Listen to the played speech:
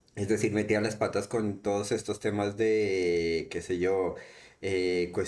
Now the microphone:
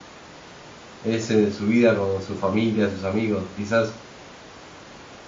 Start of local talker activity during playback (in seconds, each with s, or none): 1.0 s